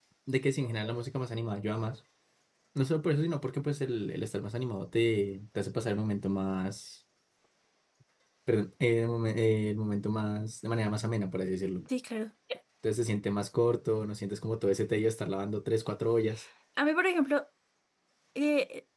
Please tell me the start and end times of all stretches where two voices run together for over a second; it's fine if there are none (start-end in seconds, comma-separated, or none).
none